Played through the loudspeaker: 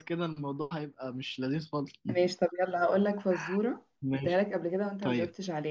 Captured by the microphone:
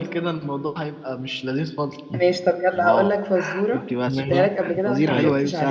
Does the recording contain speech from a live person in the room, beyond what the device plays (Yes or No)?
Yes